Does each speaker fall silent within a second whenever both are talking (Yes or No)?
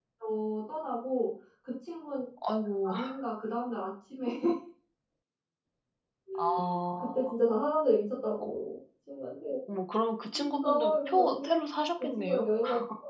No